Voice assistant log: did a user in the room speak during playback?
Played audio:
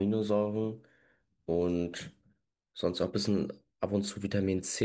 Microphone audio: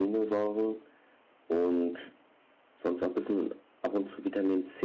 No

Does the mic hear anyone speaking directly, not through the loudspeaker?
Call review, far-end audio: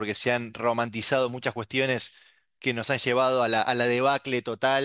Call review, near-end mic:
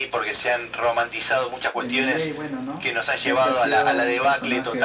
Yes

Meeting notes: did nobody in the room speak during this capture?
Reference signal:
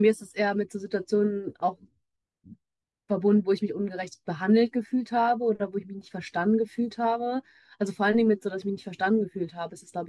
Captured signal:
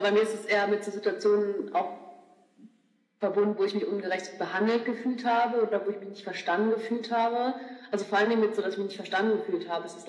Yes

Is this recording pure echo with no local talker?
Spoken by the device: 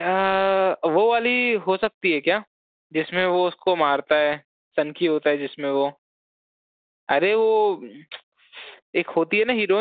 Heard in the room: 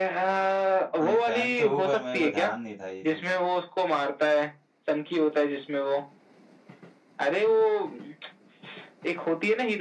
No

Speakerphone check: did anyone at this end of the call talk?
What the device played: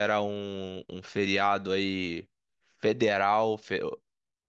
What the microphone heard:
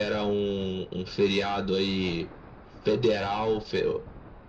No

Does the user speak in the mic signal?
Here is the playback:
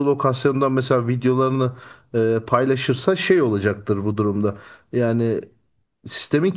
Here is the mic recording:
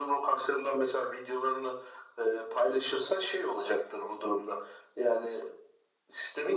No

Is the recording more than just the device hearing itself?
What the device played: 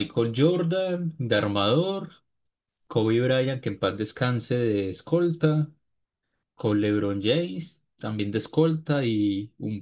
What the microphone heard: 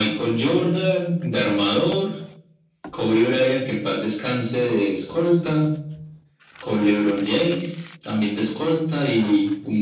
No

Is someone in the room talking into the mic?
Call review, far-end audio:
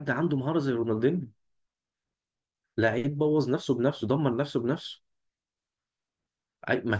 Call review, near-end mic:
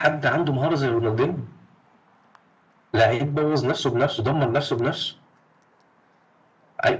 No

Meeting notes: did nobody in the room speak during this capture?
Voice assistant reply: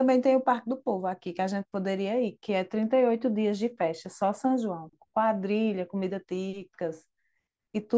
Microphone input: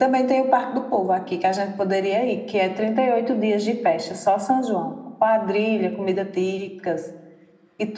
Yes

